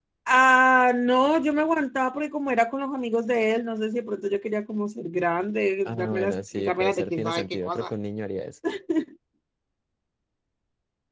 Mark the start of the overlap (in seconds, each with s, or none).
5.8 s